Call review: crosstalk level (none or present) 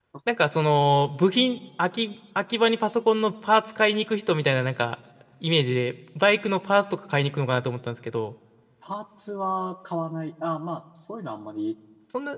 none